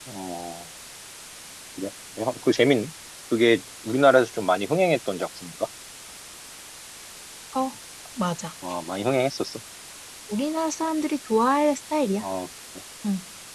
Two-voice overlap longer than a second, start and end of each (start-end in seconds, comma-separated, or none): none